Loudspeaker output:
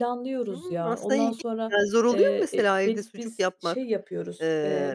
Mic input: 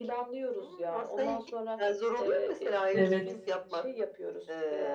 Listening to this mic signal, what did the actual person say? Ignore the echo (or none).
Evet.